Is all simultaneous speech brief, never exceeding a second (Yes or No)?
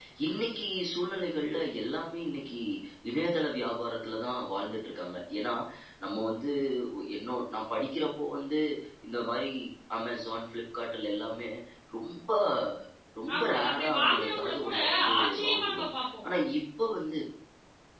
No